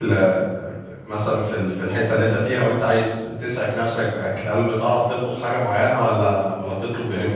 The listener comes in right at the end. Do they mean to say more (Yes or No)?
Yes